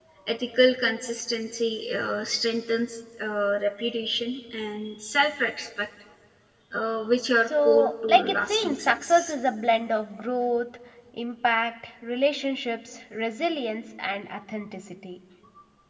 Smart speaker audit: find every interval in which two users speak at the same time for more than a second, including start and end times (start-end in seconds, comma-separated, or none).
7.5-9.3